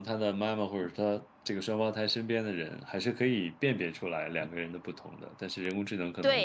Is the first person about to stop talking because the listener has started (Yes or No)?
Yes